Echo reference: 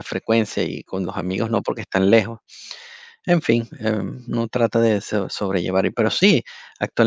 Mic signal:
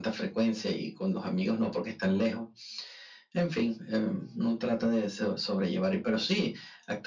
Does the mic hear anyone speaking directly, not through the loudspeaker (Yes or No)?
No